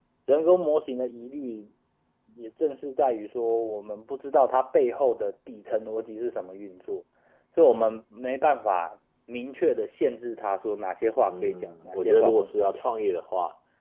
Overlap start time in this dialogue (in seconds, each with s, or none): 11.3 s